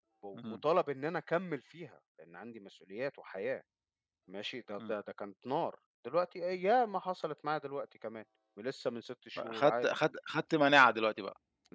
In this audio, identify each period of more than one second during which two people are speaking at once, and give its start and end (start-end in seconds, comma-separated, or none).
none